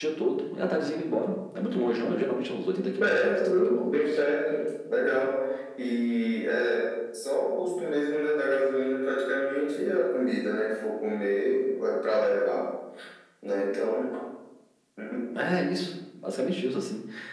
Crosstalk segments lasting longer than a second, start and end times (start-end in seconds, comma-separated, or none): 3.0-4.2